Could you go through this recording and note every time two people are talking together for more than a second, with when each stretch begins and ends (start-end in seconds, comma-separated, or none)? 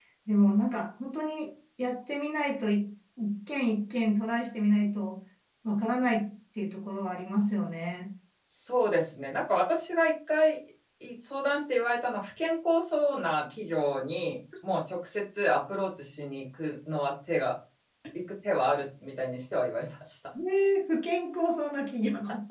none